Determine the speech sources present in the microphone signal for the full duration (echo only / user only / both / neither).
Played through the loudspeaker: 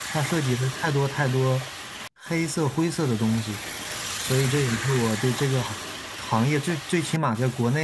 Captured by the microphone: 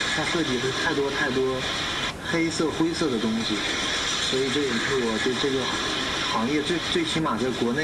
echo only